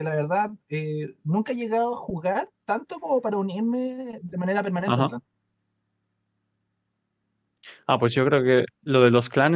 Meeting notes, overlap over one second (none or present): none